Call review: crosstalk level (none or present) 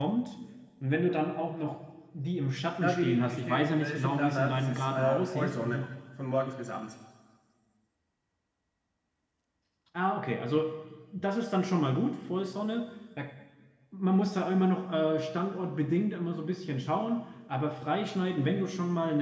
present